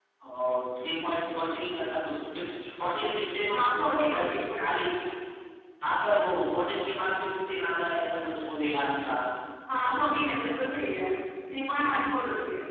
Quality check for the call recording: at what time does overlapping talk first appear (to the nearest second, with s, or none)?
3 s